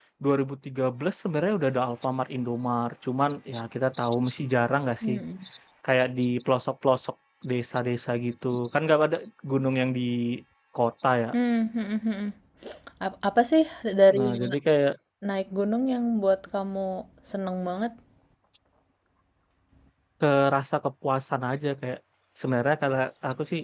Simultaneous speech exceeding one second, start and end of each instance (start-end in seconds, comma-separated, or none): none